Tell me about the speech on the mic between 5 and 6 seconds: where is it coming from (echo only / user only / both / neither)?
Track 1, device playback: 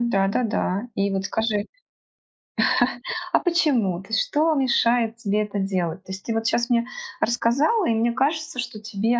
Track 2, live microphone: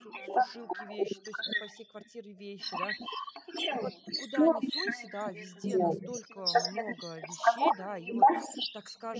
both